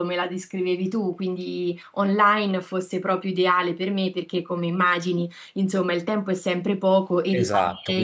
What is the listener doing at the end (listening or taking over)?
taking over